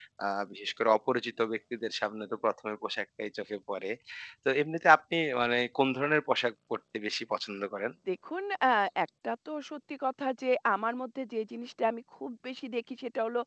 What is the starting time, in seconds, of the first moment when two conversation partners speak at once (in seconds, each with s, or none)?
none